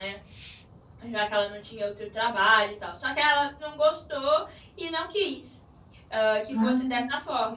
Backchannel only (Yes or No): Yes